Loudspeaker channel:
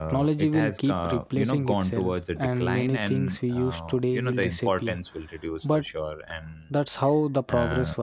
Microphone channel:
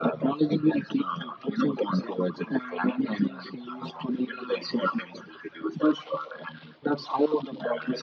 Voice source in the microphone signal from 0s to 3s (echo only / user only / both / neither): echo only